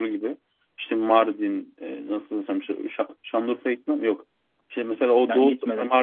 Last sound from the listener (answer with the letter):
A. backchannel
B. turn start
A